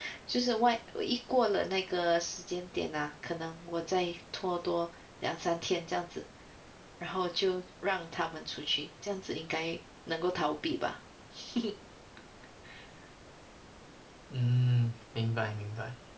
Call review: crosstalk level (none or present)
none